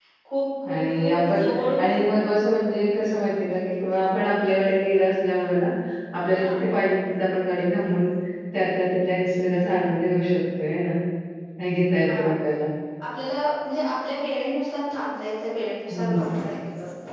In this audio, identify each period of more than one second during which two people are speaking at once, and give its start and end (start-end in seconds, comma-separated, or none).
0.7-1.9